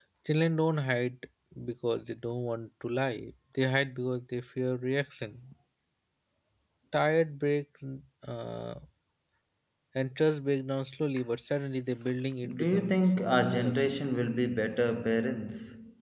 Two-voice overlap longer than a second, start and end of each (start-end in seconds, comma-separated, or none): 12.6-13.8